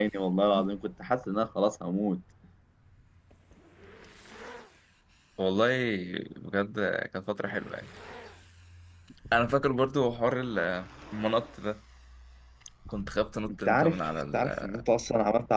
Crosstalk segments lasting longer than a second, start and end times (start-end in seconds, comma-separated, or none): 13.5-14.8